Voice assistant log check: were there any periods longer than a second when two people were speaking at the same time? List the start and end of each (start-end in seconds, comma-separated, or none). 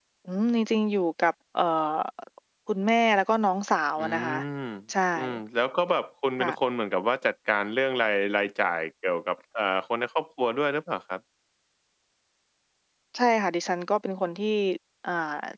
none